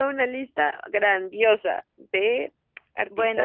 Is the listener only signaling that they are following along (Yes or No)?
No